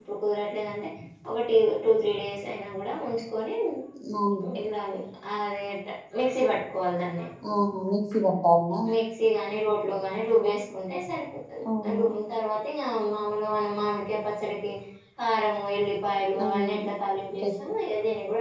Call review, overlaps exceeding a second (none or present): none